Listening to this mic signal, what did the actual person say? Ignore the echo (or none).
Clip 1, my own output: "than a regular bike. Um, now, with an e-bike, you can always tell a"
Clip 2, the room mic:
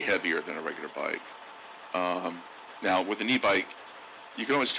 none